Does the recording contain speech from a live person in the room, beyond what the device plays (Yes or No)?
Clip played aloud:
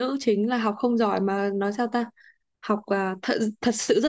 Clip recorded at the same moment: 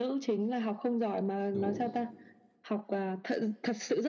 Yes